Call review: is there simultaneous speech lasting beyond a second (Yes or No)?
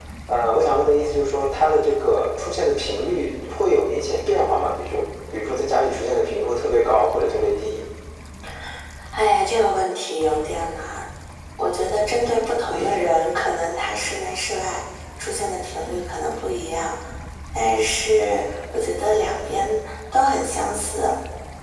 No